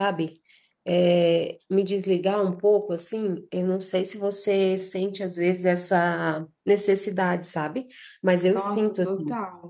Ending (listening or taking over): taking over